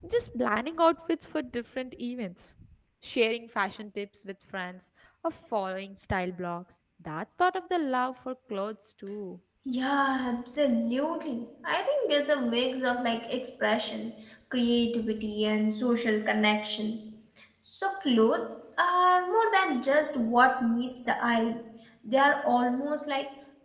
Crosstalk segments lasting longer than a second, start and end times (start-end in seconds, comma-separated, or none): none